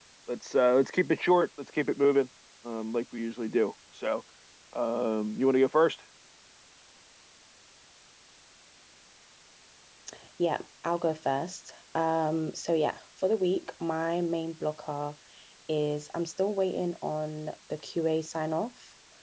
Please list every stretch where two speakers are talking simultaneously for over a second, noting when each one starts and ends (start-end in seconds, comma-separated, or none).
none